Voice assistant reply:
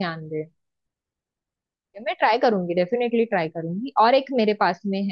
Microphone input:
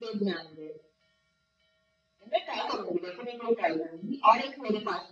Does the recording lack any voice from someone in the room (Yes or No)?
Yes